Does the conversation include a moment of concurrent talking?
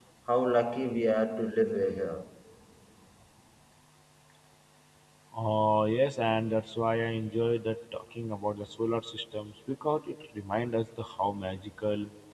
No

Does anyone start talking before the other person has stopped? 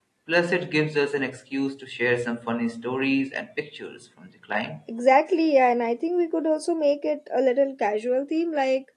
No

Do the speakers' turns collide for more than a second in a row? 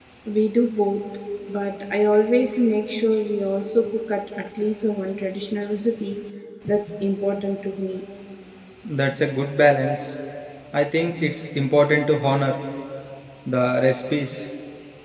No

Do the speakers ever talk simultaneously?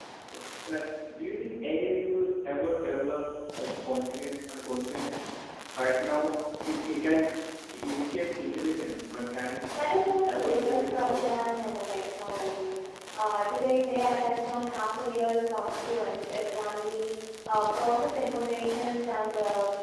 Yes, from 10.2 s

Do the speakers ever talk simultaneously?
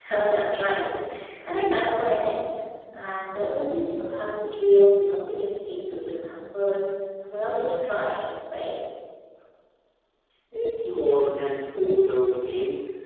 No

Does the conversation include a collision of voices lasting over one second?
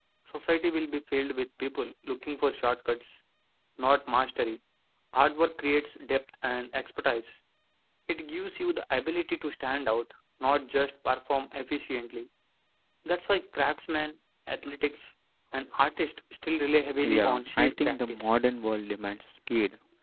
Yes, from 17.0 s

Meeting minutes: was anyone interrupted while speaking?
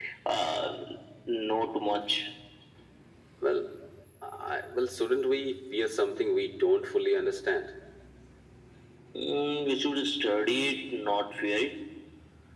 No

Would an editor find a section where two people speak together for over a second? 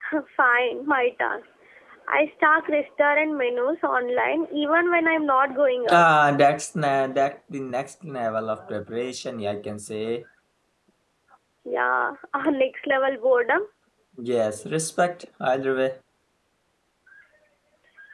No

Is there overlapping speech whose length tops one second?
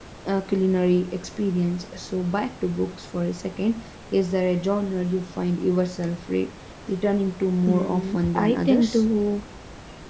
Yes, from 7.7 s

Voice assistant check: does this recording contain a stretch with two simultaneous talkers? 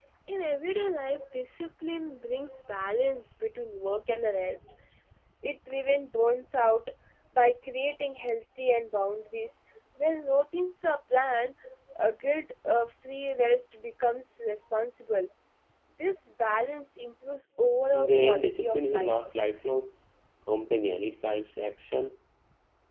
Yes, from 17.9 s

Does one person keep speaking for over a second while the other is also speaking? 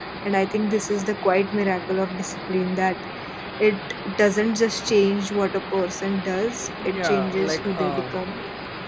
Yes, from 6.8 s

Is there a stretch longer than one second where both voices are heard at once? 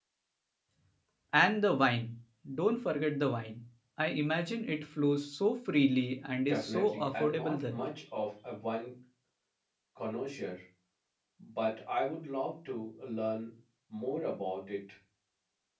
Yes, from 6.4 s

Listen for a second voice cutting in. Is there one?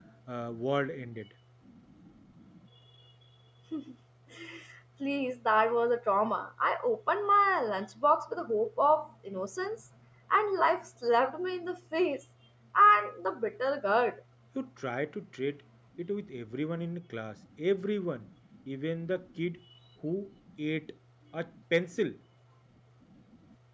No

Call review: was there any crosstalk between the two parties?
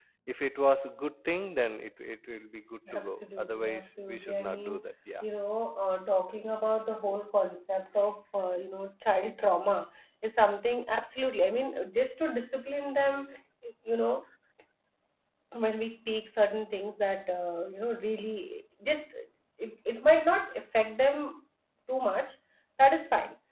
Yes, from 2.9 s

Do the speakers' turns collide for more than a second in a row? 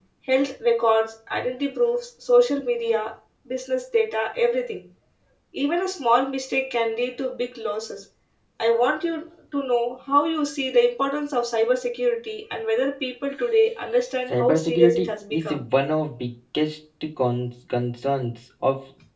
Yes, from 14.3 s

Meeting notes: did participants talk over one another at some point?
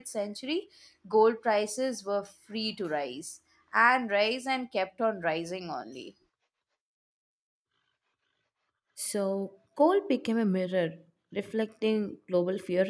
No

